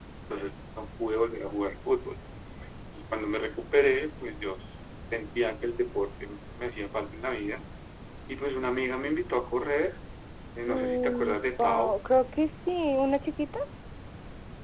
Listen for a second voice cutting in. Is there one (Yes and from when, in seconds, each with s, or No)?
Yes, from 10.7 s